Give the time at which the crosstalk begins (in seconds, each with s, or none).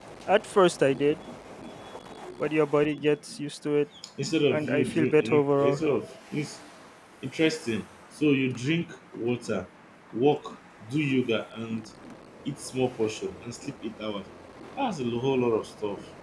4.5 s